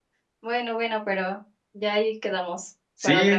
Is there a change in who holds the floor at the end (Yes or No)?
Yes